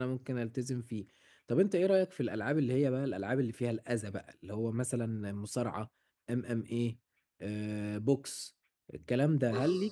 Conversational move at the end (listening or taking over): listening